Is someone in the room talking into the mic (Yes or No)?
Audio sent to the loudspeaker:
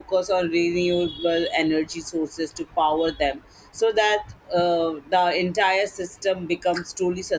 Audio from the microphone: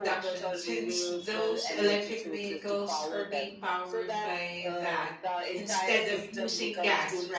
Yes